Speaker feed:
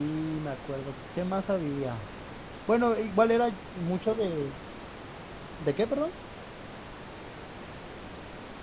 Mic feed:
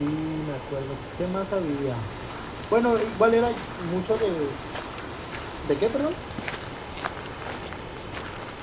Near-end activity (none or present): none